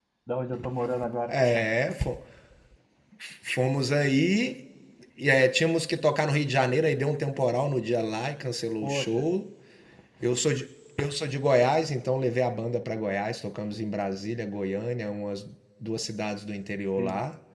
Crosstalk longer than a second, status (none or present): none